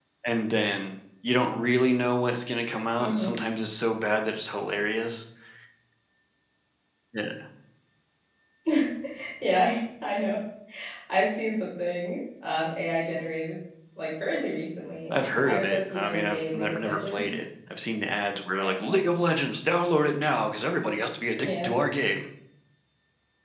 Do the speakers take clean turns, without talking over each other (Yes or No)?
No